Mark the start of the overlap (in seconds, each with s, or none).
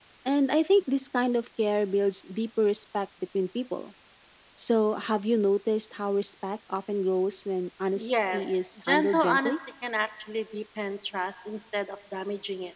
7.9 s